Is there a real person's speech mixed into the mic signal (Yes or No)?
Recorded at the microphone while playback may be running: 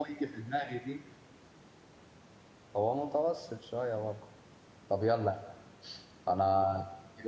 Yes